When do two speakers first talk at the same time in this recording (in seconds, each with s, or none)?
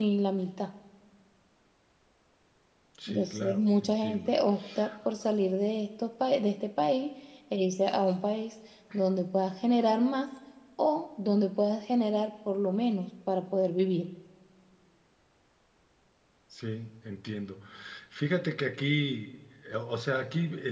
3.1 s